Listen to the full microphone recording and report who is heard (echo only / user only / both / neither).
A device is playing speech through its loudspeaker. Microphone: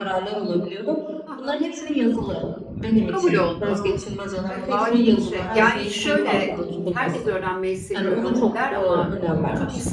both